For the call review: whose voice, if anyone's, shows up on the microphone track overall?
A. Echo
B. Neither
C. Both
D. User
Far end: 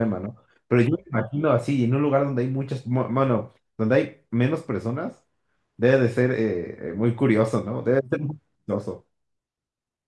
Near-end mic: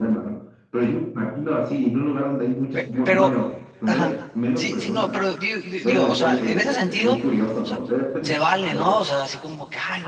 C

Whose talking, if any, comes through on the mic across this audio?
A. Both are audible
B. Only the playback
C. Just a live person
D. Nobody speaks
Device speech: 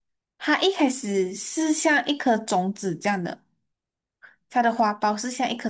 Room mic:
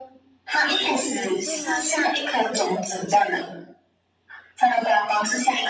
A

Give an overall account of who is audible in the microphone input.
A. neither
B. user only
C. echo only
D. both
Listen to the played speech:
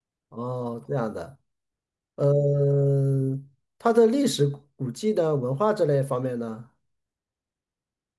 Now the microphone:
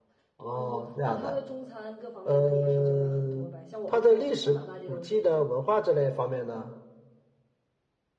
D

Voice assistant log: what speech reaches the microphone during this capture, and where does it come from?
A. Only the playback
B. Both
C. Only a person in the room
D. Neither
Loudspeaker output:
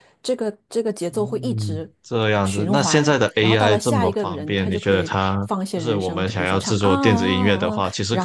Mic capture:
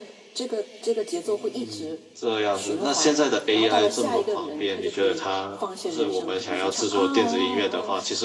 A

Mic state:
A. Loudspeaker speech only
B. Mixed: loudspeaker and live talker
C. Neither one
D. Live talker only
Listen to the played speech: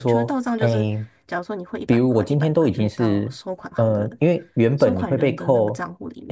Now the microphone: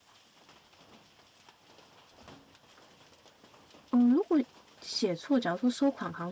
D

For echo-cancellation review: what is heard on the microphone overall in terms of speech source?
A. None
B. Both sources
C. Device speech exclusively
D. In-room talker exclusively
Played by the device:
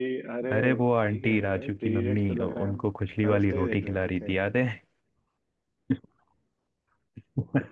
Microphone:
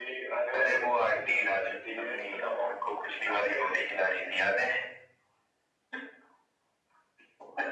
C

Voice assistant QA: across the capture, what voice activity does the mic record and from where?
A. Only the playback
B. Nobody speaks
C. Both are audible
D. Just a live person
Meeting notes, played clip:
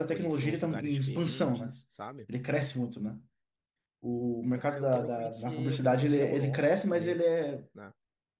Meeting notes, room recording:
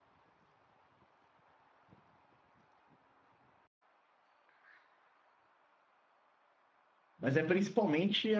D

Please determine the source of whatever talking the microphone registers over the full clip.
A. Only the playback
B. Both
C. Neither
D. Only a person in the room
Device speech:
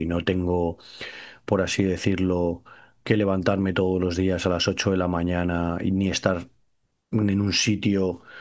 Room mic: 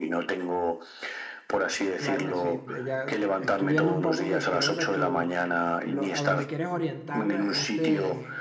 B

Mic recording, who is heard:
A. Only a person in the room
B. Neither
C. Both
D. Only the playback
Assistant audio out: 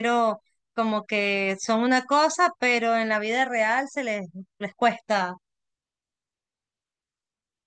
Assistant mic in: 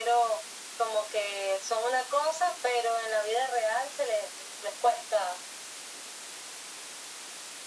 D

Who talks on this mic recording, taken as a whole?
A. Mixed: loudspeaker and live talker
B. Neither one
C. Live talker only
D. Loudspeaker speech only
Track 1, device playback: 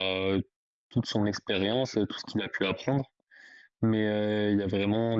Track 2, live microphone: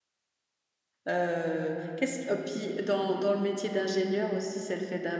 C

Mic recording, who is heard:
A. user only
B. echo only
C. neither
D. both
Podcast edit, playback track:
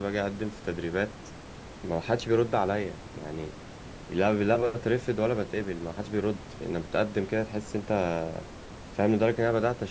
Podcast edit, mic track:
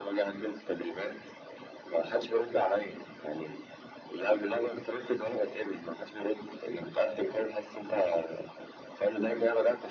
B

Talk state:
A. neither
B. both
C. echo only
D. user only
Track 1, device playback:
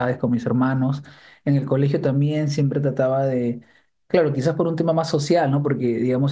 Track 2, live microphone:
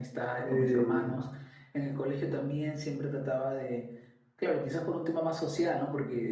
B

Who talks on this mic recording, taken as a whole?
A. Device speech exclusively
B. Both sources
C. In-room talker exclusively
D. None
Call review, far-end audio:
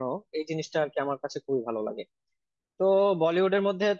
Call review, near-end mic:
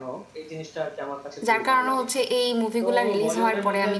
B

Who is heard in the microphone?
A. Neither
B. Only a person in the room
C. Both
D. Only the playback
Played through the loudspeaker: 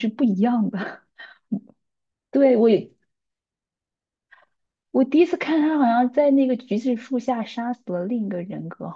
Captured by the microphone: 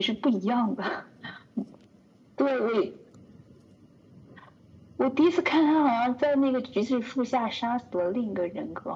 D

